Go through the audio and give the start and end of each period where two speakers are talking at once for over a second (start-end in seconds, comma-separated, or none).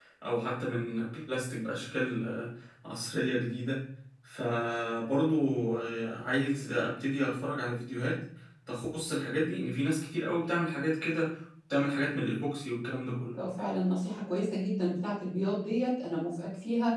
none